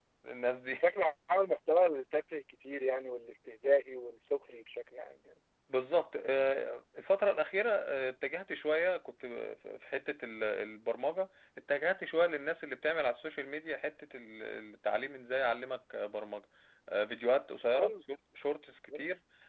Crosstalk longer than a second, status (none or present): none